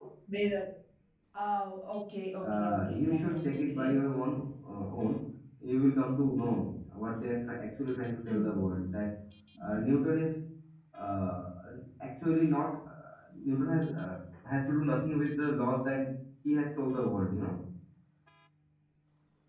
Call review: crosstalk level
present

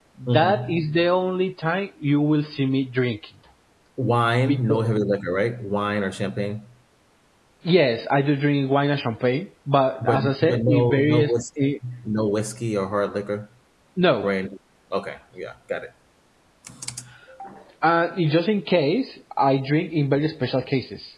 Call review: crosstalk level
present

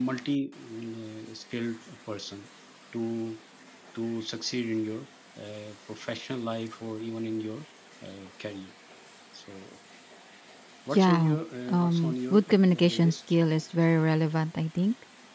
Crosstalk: present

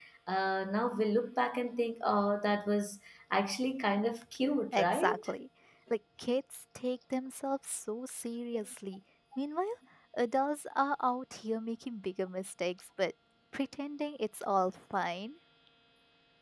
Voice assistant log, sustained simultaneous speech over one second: none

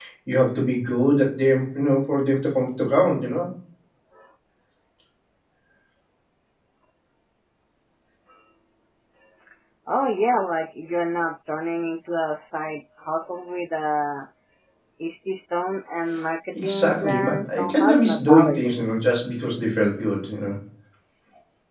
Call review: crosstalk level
present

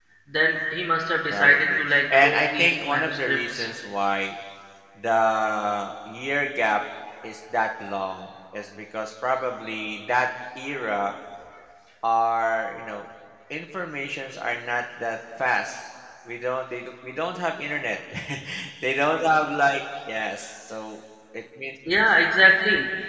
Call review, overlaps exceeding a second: present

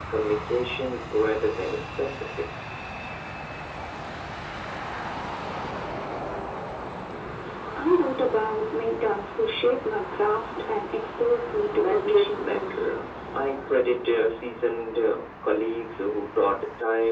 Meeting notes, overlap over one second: present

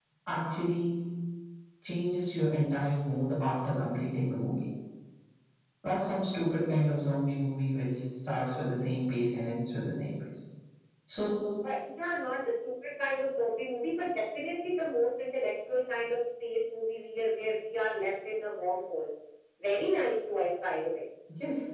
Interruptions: none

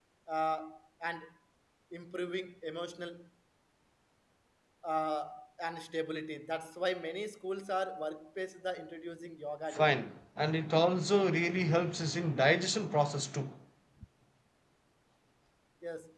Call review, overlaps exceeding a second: none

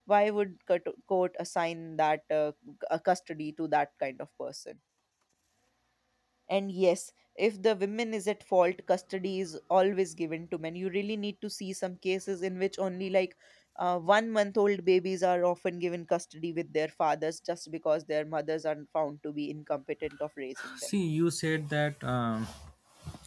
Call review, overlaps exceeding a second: none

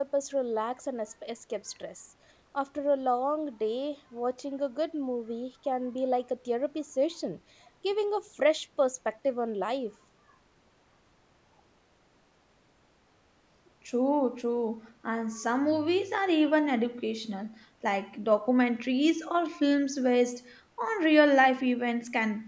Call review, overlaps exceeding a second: none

